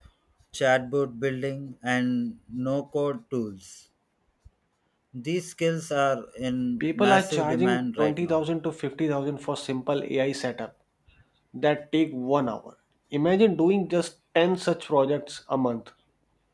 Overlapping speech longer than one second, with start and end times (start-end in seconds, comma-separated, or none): 6.8-8.4